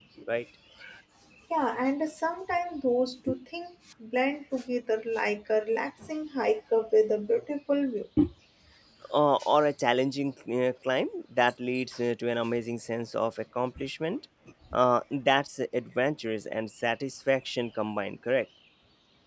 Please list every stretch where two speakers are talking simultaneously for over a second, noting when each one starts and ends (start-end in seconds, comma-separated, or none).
none